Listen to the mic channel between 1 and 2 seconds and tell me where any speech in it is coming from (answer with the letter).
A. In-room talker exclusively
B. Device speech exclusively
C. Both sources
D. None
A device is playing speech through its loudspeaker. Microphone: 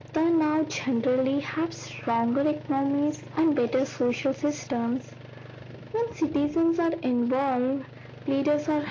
B